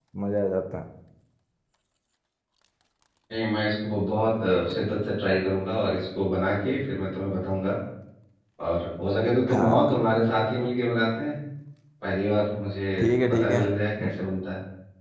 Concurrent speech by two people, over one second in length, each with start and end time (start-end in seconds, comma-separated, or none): none